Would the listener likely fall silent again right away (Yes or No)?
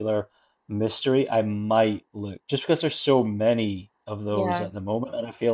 Yes